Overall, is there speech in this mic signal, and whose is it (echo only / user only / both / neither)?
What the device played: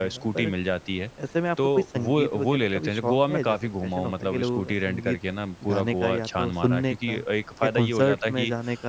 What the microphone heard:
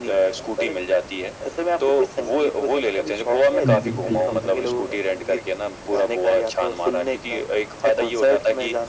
both